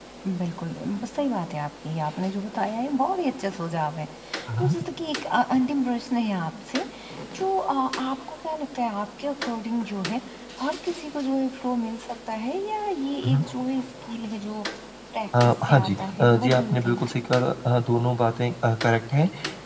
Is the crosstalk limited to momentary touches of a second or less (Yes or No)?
No